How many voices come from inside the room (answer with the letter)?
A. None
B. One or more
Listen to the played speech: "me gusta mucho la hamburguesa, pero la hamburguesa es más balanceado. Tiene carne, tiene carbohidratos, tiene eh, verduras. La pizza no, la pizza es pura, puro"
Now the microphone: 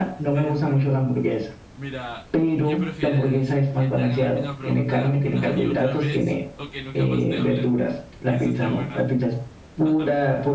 B